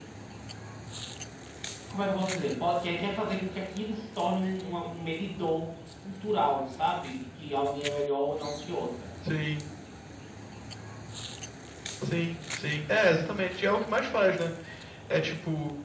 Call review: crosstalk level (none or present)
none